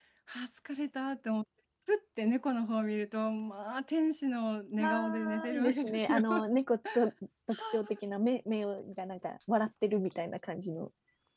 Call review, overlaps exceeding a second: present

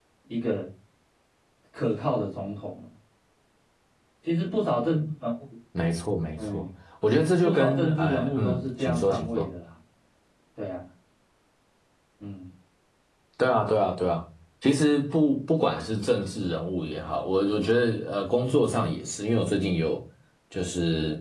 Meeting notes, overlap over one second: present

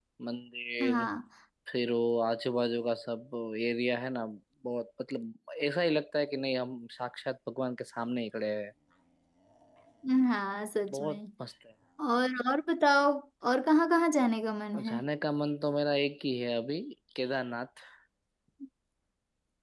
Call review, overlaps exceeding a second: none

